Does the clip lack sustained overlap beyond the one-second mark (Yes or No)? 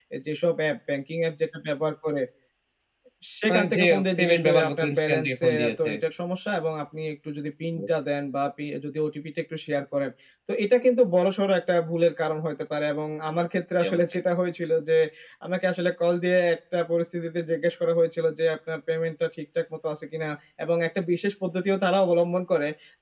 No